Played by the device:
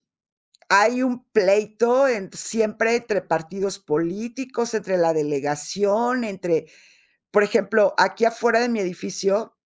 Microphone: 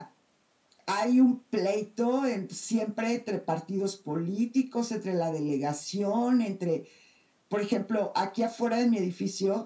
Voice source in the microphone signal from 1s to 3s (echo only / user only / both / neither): echo only